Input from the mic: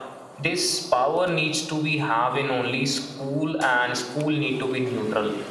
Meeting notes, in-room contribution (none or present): none